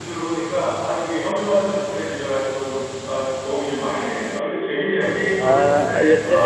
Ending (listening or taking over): taking over